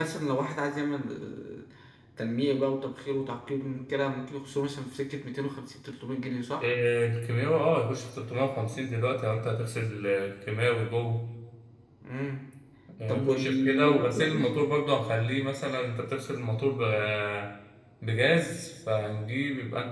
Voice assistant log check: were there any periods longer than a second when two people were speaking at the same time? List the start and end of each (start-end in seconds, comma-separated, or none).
13.1-14.5